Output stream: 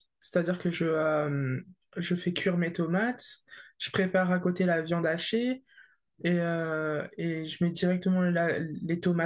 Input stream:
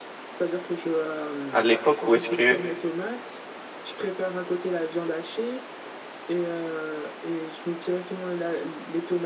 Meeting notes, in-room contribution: present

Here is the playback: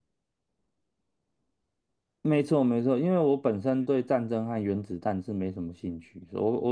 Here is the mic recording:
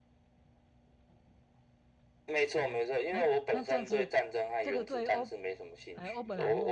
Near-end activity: present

